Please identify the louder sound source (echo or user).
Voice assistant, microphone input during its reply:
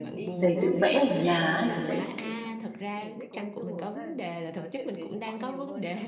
user